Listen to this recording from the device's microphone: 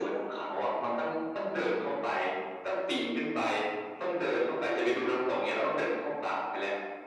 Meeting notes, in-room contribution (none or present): none